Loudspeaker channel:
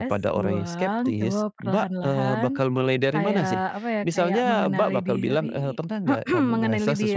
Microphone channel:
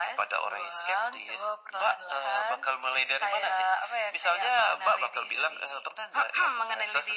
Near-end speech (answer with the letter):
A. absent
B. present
A